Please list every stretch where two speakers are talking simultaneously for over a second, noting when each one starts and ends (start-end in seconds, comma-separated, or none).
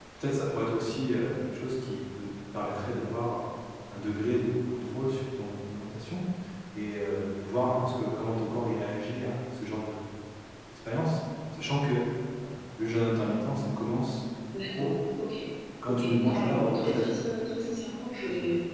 15.9-17.2